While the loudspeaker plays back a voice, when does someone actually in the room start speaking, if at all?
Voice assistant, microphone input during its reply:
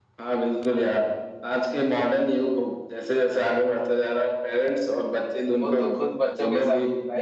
5.6 s

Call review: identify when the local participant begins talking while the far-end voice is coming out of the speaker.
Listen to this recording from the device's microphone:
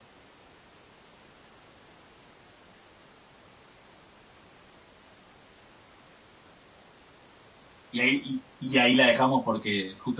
7.9 s

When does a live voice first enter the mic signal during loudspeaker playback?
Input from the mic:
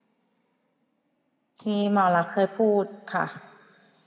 1.6 s

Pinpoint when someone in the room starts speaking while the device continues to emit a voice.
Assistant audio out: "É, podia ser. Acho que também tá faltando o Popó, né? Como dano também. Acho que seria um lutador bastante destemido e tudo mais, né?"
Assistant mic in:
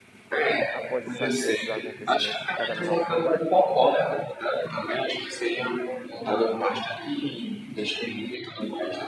0.7 s

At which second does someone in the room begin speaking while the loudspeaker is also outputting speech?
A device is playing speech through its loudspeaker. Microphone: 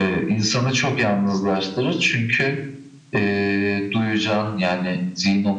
none

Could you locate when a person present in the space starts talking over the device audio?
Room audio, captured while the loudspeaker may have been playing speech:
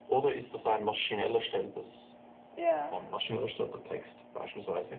2.6 s

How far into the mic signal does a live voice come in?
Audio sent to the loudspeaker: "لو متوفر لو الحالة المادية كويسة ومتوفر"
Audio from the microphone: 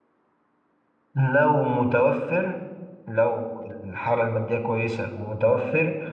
none

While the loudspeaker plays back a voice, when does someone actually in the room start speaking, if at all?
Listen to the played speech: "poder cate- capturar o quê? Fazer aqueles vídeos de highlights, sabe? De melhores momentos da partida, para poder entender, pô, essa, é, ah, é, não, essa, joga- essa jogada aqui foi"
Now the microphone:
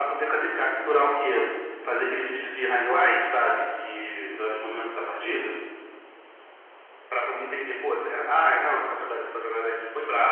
none

